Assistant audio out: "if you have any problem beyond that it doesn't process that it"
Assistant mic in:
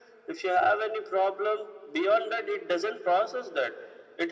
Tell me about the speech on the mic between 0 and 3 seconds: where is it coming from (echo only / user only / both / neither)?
echo only